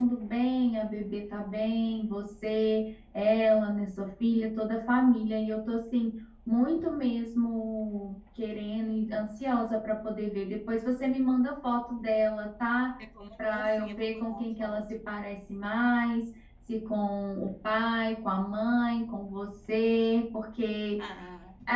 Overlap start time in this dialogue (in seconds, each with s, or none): 13.5 s